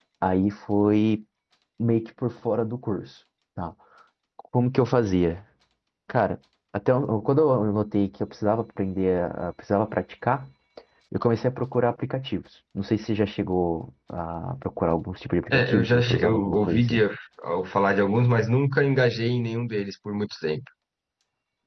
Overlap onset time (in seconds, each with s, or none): 15.5 s